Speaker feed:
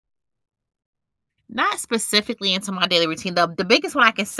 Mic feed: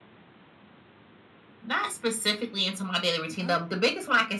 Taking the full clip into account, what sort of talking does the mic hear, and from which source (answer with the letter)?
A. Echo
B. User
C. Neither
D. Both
D